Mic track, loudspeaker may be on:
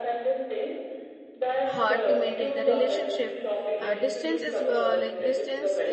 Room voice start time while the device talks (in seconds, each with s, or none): 1.6 s